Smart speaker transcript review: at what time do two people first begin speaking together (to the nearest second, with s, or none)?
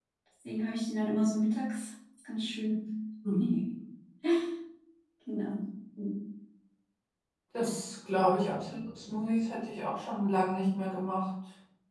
none